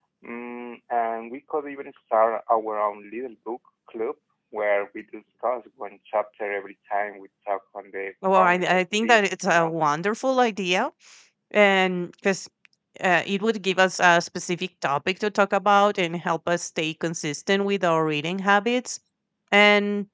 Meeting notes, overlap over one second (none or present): present